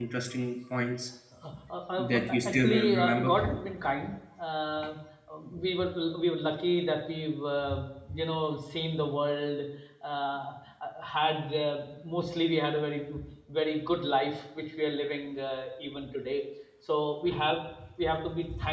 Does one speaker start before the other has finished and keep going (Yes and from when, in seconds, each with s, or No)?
Yes, from 2.0 s